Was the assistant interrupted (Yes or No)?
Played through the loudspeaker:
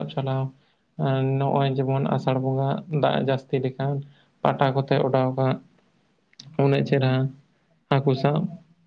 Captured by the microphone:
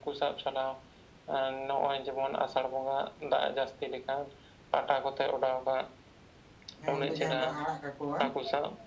Yes